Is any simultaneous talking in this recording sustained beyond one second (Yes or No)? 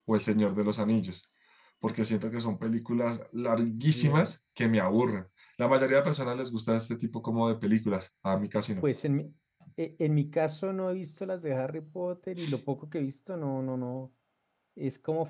No